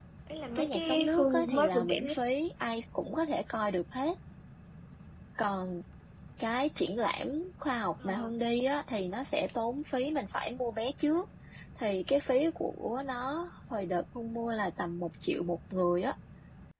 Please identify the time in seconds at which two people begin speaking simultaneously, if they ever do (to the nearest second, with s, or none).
1 s